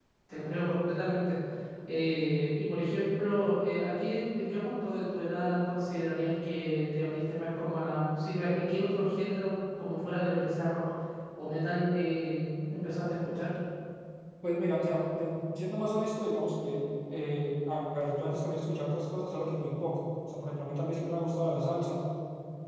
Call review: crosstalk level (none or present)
none